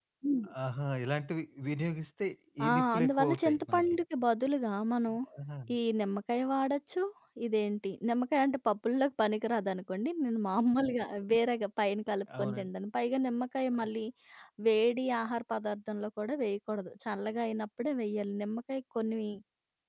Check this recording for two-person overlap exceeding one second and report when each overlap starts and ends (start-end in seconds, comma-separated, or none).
2.7-4.0